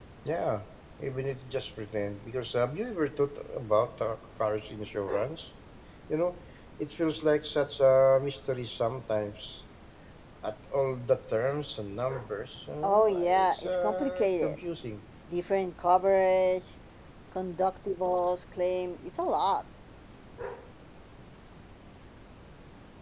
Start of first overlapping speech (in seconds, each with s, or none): 12.8 s